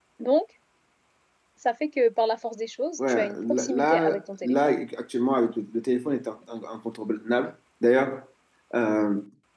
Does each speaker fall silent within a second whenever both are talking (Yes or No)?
No